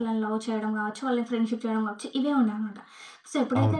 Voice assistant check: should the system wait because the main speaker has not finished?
Yes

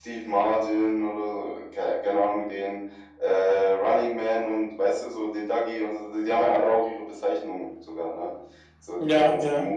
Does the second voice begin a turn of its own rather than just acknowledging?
No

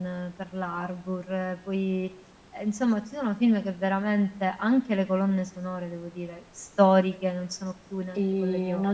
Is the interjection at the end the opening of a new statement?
Yes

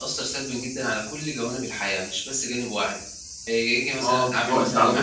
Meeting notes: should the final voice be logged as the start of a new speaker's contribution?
Yes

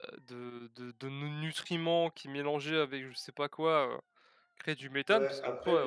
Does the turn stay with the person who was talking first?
No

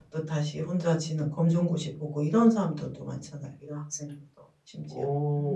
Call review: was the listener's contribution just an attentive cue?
No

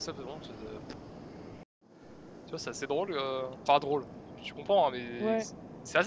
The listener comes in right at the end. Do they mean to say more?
No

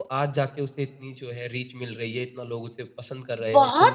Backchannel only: No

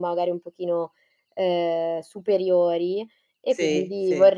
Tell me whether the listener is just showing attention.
Yes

